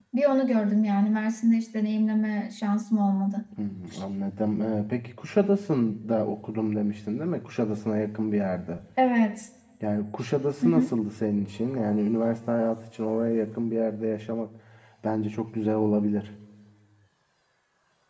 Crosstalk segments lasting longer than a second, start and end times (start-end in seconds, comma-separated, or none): none